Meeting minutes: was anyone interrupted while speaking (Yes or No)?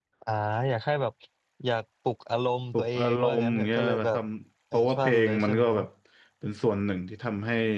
Yes